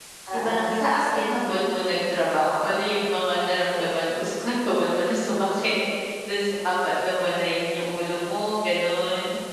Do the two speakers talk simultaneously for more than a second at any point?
Yes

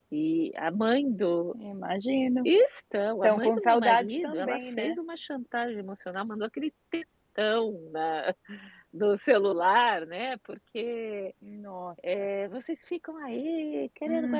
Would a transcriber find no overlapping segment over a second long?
No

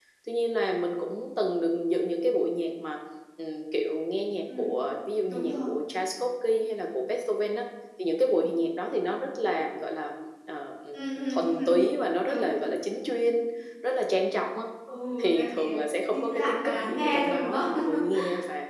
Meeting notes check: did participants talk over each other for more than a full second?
Yes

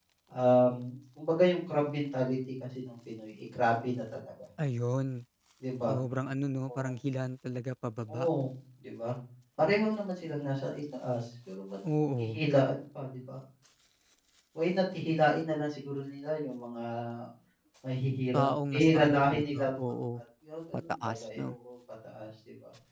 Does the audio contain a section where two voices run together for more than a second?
Yes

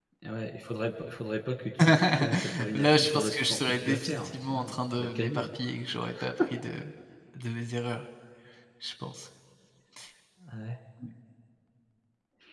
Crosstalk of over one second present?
Yes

